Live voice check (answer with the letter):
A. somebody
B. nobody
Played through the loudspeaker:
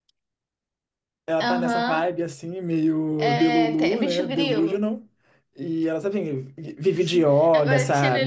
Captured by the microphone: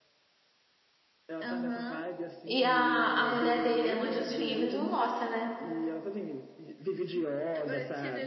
A